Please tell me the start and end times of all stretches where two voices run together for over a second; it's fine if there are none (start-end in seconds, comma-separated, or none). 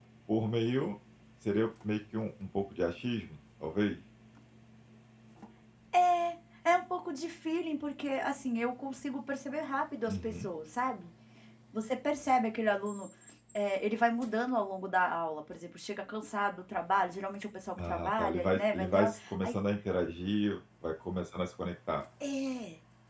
17.8-19.6